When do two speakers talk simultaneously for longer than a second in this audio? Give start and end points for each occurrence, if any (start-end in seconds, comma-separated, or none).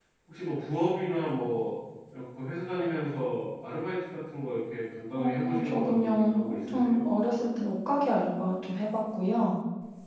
5.2-7.0